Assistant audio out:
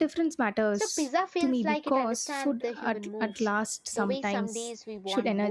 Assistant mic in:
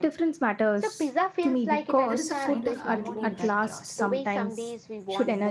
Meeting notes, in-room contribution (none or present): present